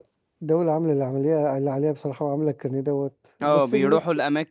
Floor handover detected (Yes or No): Yes